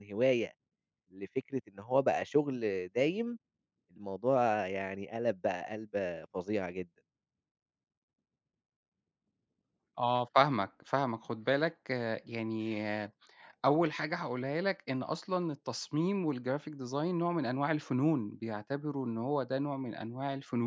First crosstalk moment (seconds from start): none

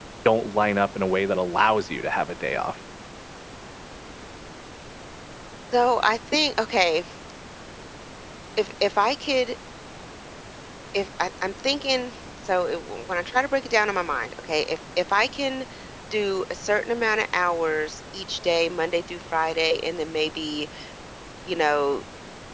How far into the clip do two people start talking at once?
none

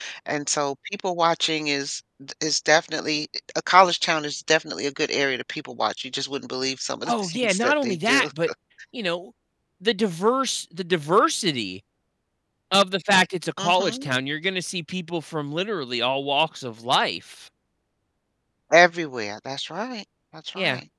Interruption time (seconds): 7.1 s

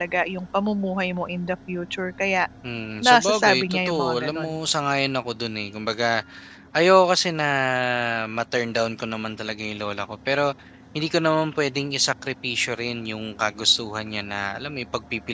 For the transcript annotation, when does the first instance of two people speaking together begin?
3.0 s

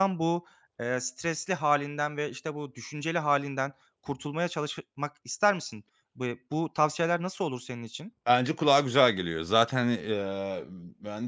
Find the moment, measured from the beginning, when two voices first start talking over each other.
none

